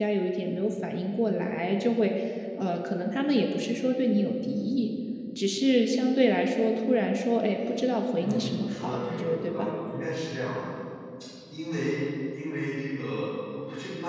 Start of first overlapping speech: 8.2 s

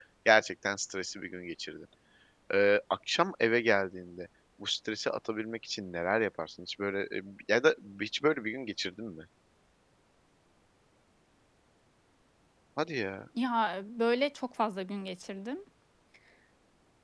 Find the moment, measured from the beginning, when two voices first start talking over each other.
none

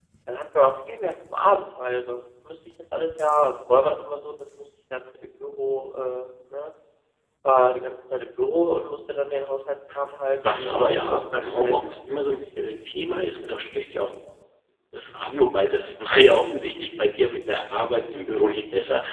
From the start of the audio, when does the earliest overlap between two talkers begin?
10.4 s

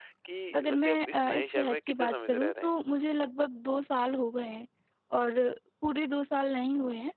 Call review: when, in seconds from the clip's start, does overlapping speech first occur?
0.6 s

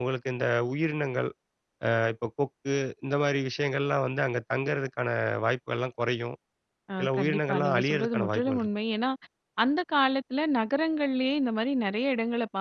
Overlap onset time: 7.0 s

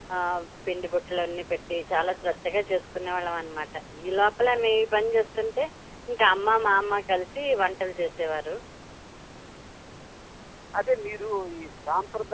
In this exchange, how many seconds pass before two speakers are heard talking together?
none

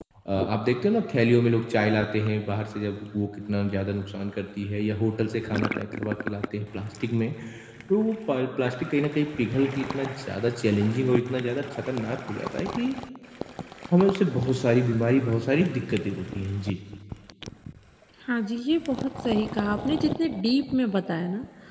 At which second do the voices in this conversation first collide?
none

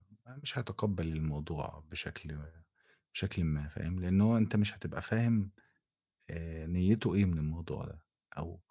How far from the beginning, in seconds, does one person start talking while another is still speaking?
none

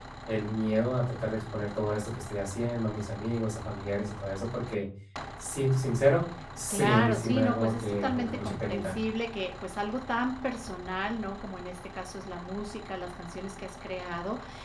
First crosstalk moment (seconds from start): 6.7 s

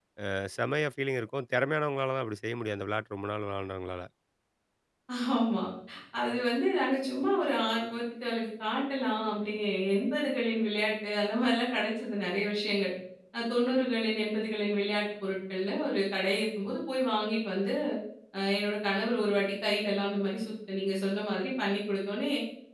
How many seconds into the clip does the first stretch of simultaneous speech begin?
none

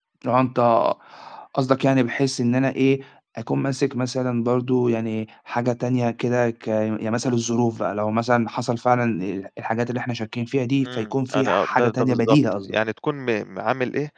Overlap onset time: 10.8 s

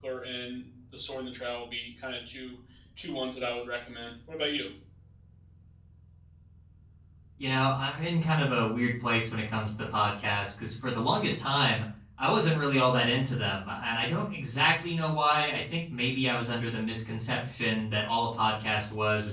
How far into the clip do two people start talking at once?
none

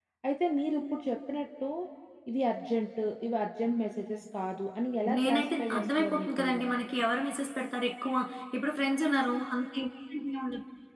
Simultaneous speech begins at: 5.1 s

